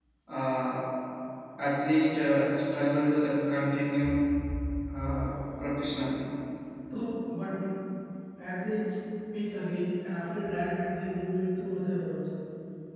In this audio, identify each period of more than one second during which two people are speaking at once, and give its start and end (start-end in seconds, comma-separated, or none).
none